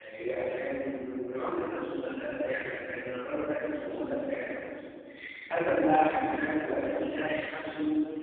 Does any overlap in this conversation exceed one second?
No

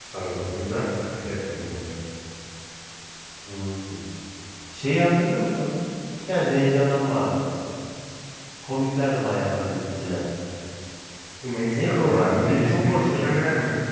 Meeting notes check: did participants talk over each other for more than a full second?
Yes, from 11.7 s

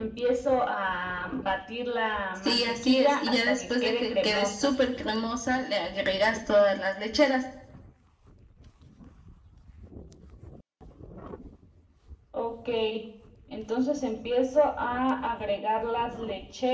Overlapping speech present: Yes, from 2.4 s

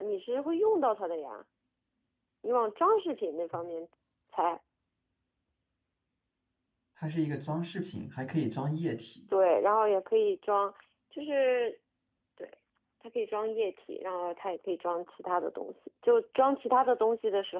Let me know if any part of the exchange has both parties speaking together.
No

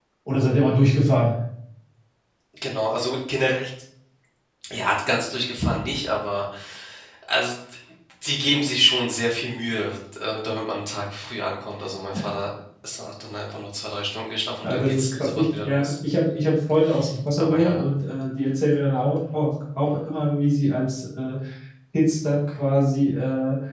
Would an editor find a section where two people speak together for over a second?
Yes, from 14.6 s

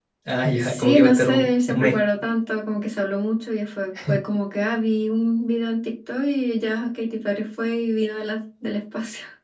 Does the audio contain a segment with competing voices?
Yes, from 0.6 s

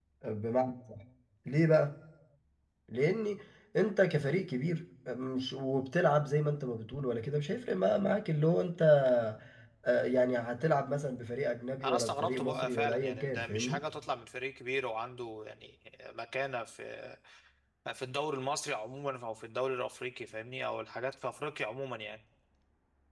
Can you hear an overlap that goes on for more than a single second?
Yes, from 11.8 s

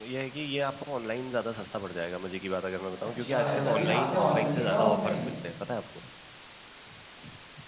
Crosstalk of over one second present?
Yes, from 2.9 s

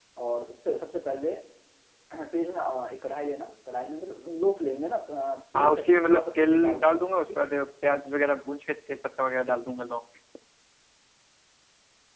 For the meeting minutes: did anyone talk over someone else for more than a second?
Yes, from 5.5 s

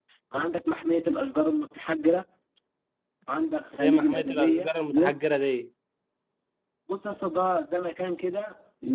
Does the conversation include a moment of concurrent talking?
Yes, from 3.8 s

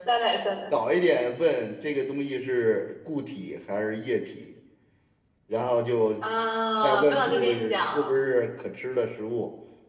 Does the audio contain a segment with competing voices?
Yes, from 6.8 s

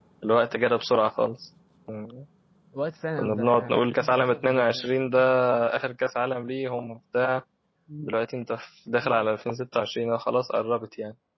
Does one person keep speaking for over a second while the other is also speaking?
Yes, from 3.2 s

